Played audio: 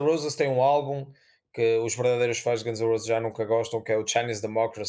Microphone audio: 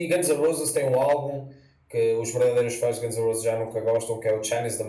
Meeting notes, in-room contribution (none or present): none